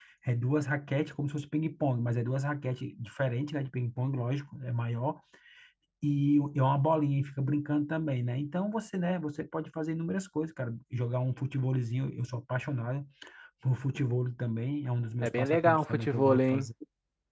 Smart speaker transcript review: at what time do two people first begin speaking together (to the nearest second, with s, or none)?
15 s